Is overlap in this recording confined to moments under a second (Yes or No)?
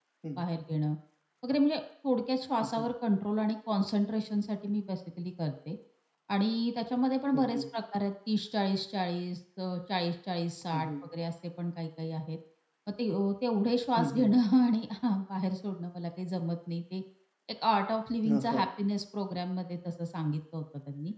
Yes